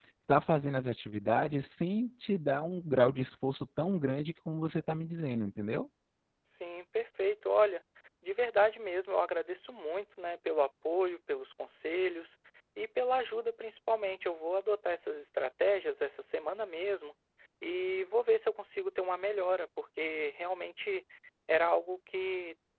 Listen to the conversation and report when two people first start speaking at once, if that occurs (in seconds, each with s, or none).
none